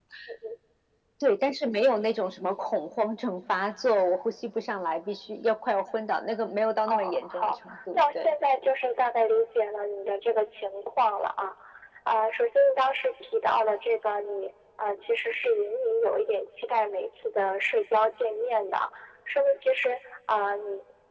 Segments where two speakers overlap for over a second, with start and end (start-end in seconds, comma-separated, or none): 6.9-8.3